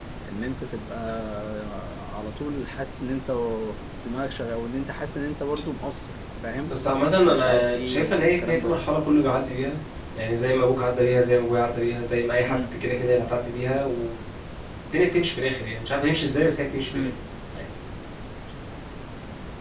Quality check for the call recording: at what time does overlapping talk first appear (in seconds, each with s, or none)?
7.2 s